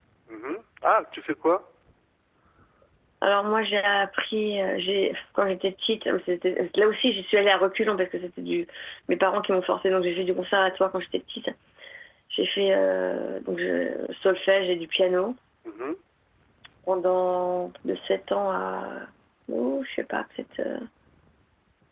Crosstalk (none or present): none